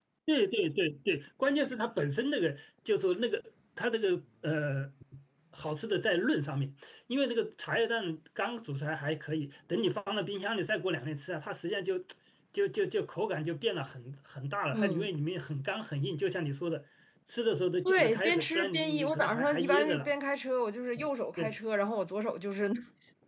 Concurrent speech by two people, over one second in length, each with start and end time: 17.8-20.1

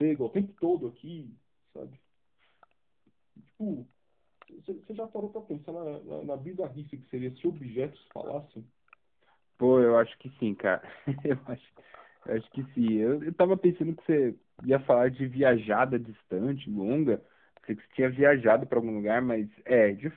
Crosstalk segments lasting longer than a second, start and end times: none

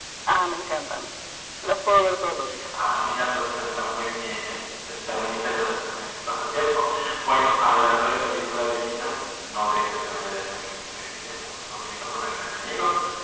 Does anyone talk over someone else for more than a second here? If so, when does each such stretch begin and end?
none

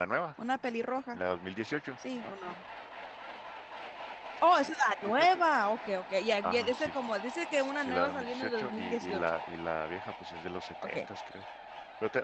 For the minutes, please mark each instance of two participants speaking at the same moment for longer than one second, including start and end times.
7.8-9.2

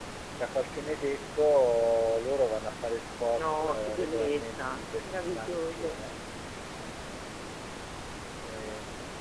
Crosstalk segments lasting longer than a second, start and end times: 3.3-6.0

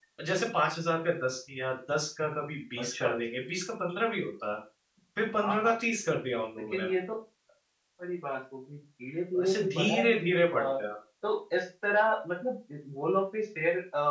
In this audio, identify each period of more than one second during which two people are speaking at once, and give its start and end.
9.4-10.7

